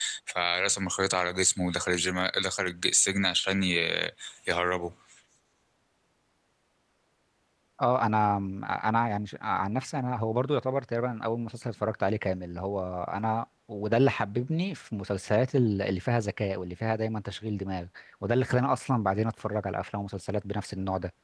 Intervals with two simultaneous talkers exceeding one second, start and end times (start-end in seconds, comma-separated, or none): none